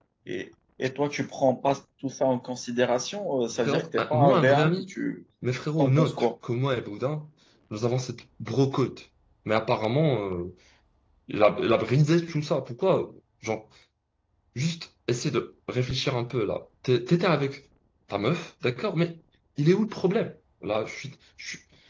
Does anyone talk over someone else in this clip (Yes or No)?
Yes